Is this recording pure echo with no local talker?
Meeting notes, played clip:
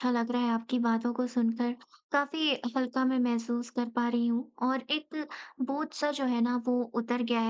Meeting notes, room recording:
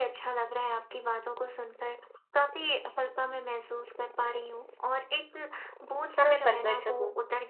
No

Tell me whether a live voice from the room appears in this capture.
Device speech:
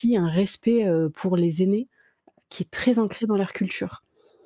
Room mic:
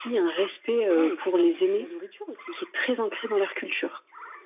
Yes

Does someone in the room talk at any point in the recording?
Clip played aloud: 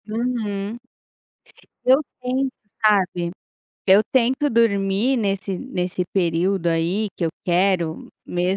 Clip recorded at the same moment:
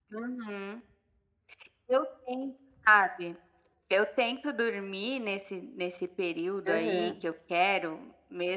Yes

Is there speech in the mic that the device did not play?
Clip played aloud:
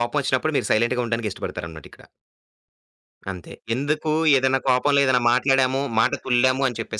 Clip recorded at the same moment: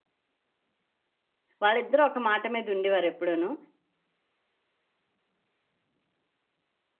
Yes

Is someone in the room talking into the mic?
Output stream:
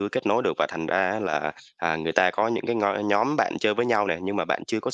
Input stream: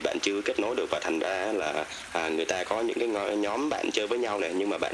No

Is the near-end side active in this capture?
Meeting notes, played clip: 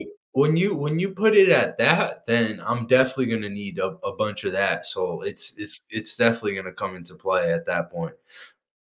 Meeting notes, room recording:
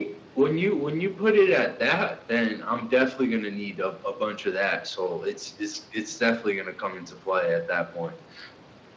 No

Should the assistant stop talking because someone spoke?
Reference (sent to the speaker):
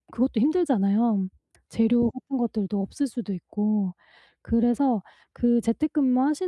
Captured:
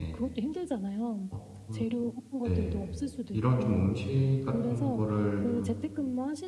Yes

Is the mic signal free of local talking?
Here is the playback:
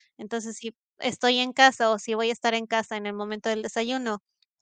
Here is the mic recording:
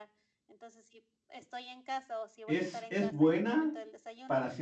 No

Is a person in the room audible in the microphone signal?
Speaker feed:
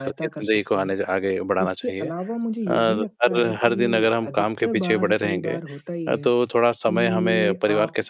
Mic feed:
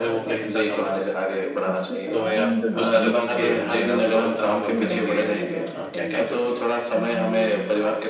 Yes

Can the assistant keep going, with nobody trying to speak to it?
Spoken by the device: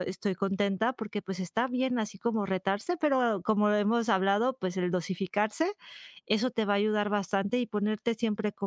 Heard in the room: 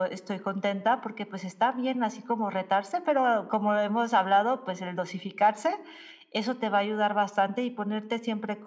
Yes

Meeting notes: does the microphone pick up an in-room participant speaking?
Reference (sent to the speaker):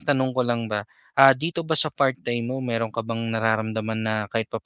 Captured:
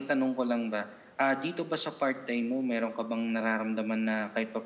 No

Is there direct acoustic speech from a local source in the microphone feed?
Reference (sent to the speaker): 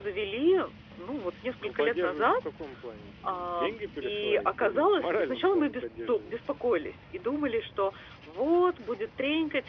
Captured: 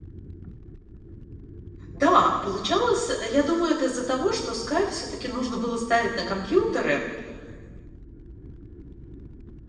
Yes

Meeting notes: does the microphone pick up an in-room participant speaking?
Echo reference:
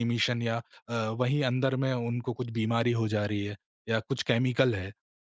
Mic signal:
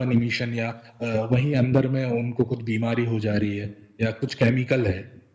No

